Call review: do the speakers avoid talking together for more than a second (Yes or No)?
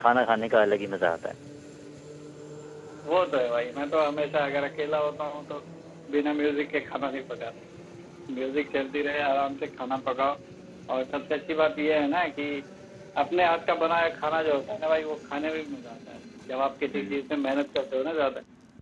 Yes